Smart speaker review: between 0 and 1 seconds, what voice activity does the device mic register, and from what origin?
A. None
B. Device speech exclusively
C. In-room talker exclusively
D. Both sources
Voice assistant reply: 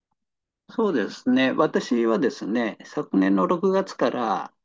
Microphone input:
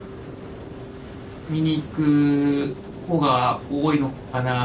A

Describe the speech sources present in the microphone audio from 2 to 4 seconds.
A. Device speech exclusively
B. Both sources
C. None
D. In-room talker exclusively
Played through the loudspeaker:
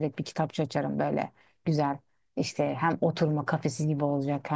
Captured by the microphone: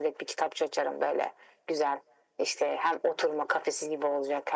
A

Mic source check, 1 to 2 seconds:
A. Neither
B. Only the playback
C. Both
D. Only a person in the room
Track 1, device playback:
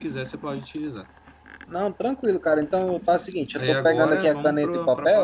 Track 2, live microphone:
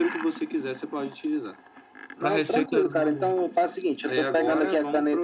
B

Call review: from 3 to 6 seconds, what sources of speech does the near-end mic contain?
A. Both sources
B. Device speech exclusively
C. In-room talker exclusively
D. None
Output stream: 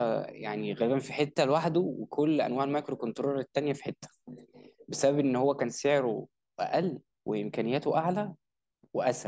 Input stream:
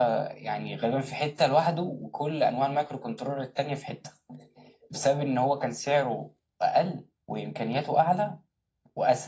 B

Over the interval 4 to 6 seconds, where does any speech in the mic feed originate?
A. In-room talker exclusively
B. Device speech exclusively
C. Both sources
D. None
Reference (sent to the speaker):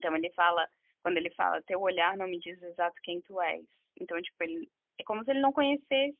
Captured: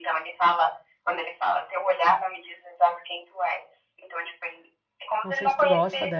C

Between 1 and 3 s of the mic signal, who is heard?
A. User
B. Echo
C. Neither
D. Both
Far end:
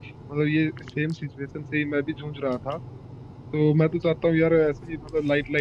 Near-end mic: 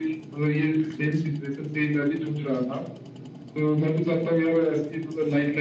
B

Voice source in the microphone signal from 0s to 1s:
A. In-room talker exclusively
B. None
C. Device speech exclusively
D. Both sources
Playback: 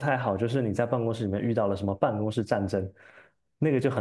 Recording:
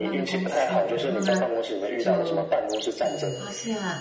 D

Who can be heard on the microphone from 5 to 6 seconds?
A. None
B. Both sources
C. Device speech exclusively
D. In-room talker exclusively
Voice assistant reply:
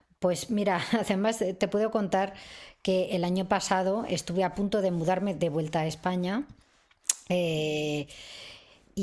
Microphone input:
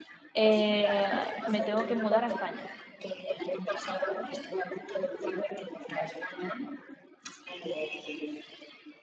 C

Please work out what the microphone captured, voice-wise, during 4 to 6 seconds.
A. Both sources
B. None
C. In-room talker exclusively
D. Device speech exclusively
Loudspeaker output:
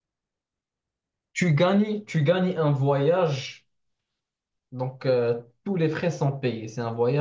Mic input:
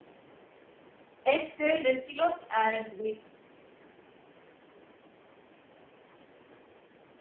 B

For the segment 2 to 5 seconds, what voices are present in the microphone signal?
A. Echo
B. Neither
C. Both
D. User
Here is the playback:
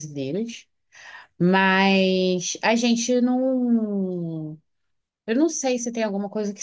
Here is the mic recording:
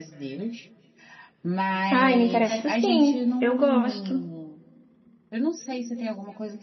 C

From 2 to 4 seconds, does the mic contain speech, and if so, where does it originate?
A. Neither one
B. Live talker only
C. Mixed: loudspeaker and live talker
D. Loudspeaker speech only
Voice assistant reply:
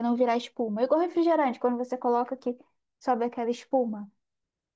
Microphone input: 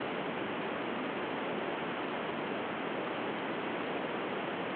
A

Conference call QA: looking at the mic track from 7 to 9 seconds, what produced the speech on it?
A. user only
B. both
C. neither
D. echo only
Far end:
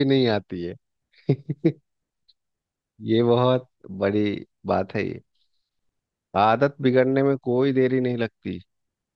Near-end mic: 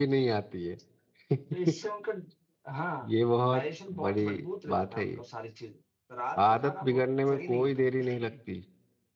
B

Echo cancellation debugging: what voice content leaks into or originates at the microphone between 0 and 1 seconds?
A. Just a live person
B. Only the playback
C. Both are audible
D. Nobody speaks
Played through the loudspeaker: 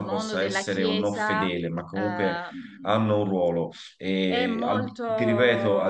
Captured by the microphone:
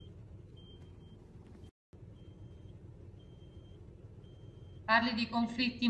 D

